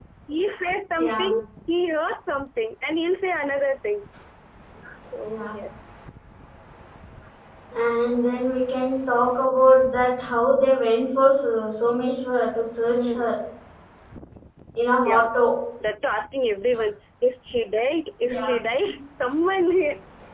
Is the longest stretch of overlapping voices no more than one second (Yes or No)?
Yes